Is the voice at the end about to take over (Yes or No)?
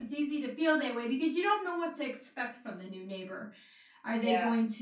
No